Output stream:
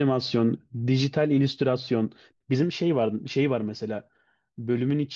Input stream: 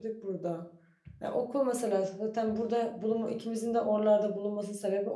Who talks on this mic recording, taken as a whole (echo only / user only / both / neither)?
user only